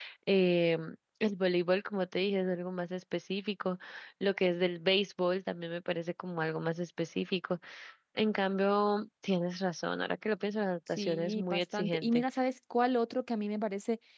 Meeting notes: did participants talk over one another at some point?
Yes, from 11.0 s

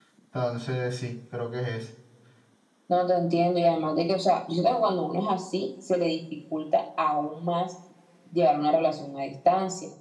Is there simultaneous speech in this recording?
No

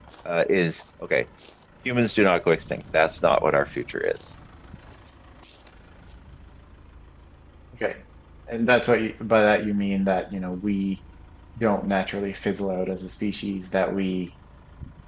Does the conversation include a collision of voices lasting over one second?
No

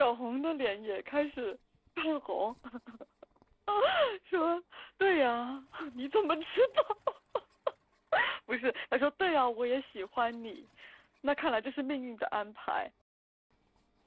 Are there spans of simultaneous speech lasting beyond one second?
No

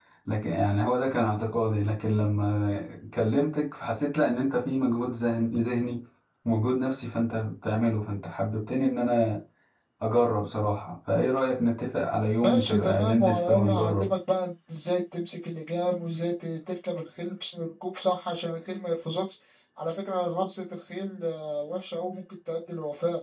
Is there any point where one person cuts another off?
Yes, from 12.4 s

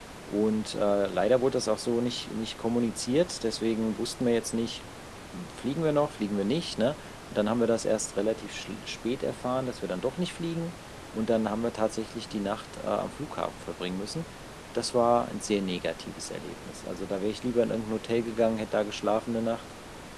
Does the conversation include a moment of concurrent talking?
No

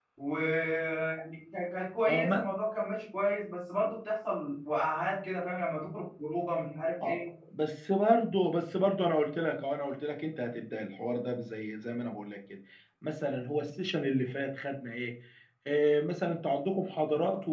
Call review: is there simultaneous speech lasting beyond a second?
No

